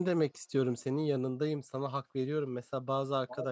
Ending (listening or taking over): listening